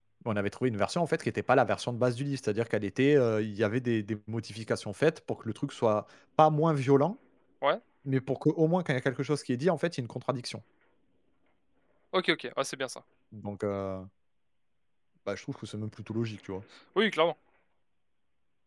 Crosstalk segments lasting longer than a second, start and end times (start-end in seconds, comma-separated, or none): none